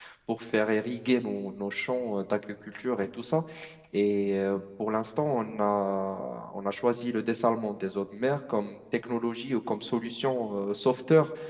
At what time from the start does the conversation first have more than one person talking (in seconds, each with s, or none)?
none